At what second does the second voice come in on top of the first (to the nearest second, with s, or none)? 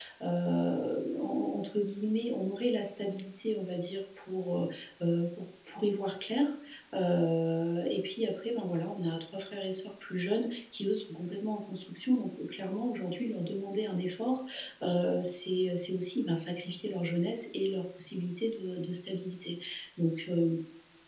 none